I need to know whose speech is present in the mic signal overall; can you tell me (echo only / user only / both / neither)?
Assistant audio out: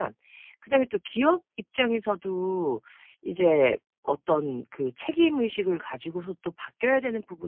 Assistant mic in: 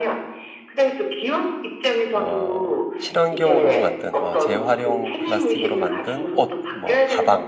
both